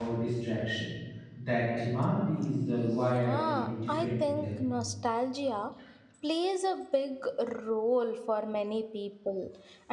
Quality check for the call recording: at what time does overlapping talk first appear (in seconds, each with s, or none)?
2.8 s